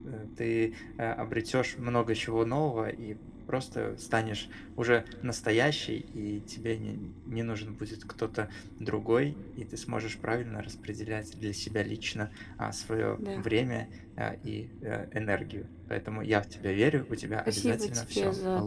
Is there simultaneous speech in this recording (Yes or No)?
Yes